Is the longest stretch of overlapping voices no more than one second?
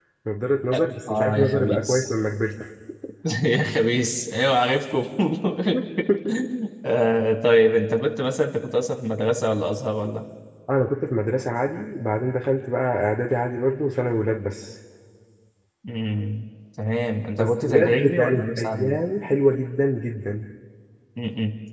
No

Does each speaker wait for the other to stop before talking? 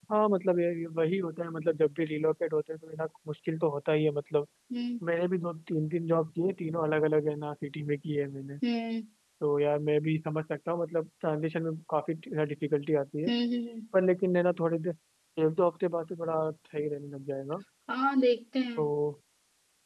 Yes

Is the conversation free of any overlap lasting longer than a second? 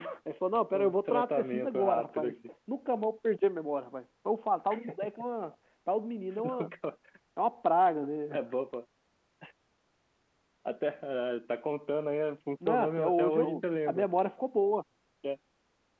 No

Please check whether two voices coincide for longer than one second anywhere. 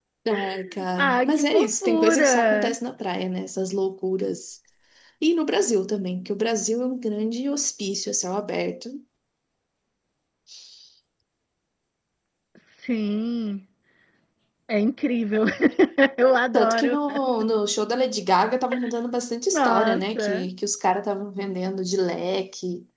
Yes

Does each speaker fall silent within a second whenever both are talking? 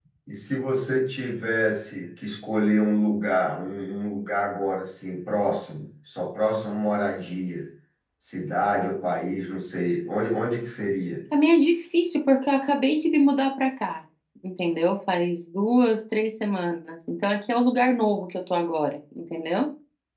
Yes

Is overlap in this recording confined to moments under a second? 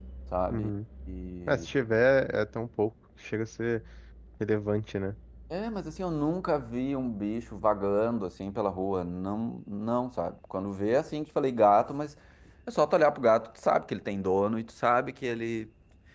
Yes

